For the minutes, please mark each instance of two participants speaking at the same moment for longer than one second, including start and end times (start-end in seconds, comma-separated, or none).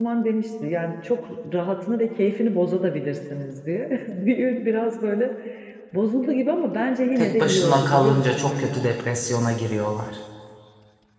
7.2-8.9